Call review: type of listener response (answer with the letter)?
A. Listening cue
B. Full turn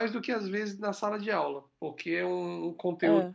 A